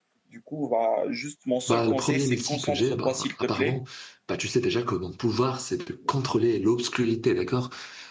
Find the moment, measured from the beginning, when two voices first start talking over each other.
1.7 s

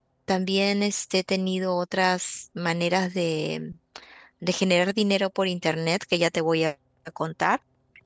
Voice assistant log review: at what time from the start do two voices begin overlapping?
none

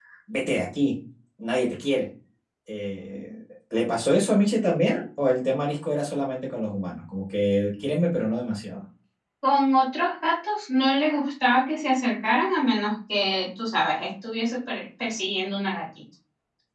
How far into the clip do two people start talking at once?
none

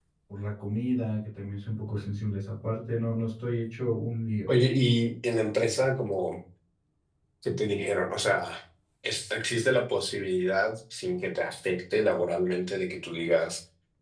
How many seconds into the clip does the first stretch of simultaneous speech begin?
none

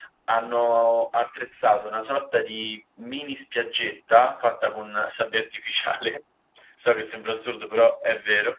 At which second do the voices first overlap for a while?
none

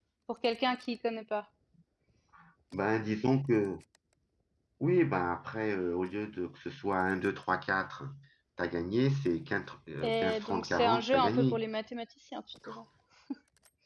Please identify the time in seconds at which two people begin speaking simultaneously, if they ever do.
10.0 s

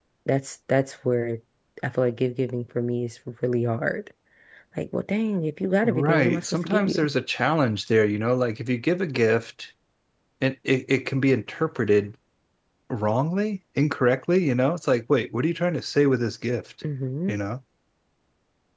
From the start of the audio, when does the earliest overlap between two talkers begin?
5.8 s

